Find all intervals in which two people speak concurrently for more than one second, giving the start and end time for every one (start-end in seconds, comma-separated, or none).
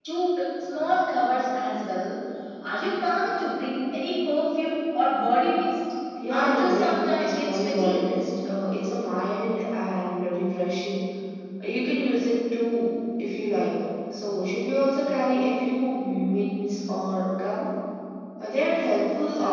6.3-7.9